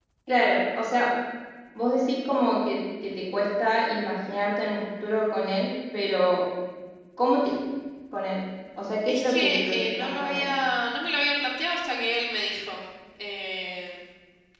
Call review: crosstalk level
present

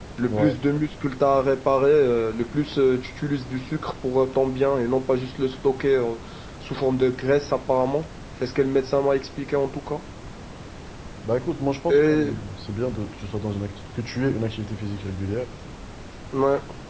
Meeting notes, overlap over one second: none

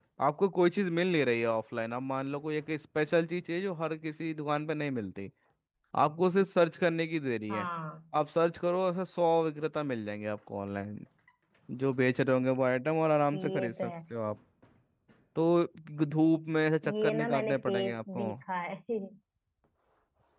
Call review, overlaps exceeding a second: present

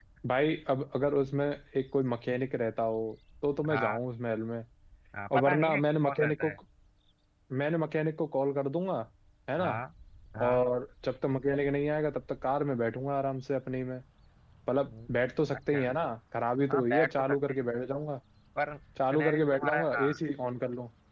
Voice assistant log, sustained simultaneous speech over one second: present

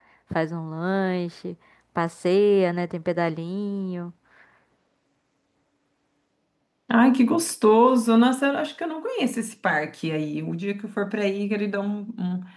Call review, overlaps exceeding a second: none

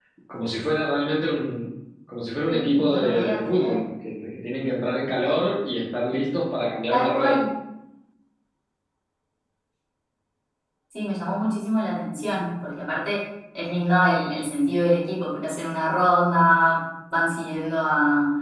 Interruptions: present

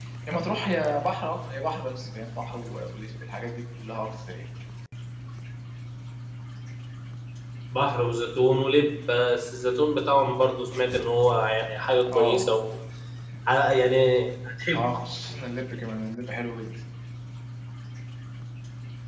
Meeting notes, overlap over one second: none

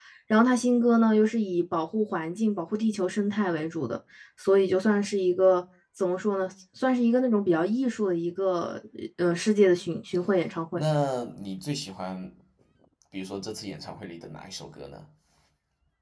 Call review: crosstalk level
none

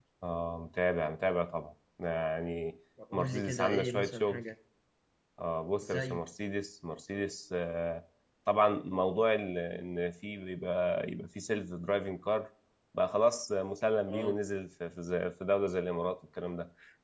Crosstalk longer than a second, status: present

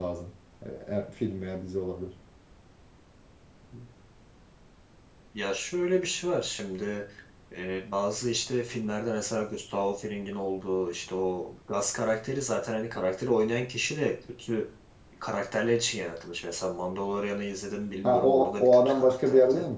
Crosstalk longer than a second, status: present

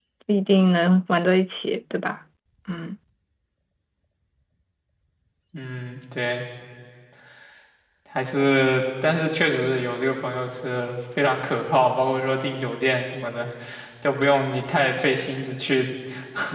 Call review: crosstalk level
none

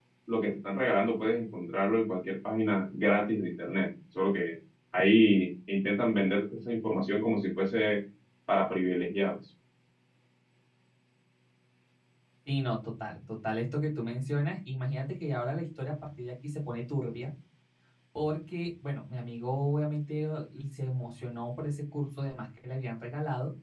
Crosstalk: none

